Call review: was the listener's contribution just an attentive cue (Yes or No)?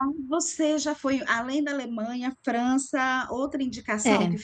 Yes